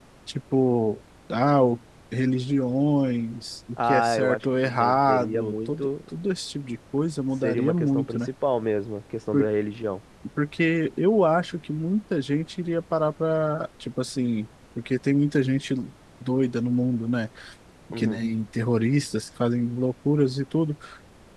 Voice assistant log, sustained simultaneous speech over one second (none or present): present